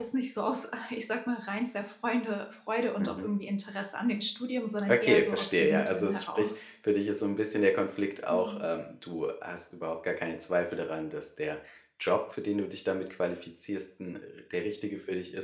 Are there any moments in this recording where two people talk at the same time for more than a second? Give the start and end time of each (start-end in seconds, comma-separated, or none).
4.9-6.5